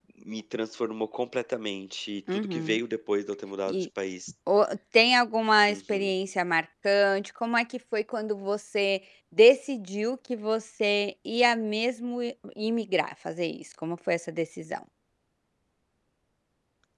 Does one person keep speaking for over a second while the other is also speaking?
No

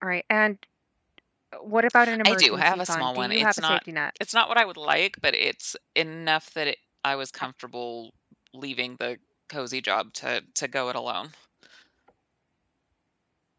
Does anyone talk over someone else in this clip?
Yes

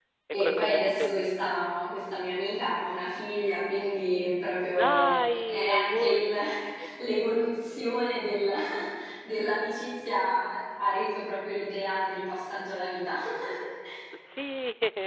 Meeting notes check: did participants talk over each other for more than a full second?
Yes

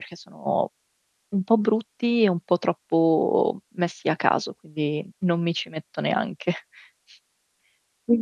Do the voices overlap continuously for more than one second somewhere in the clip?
No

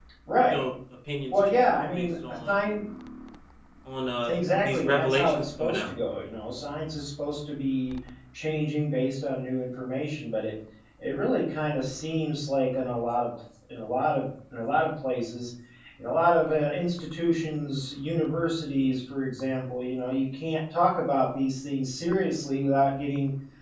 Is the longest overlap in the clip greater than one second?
Yes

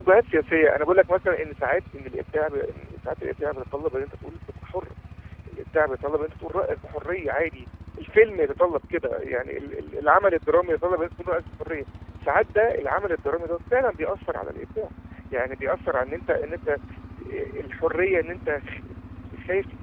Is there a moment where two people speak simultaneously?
No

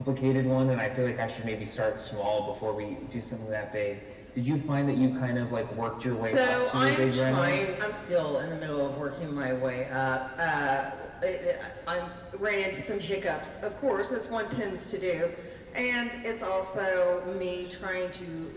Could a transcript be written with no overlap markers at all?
No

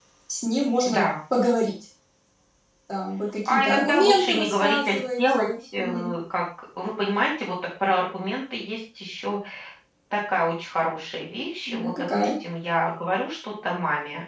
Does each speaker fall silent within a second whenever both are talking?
No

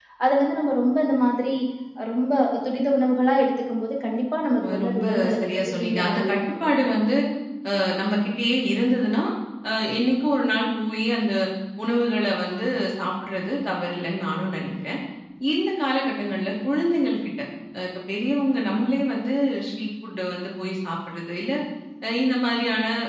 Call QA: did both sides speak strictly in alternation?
No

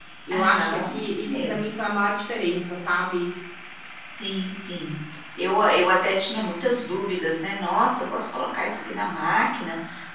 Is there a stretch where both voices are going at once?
Yes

